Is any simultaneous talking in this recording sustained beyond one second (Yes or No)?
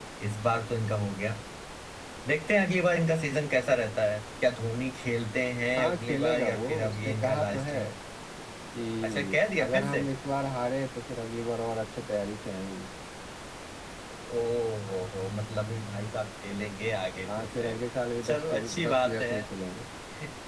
Yes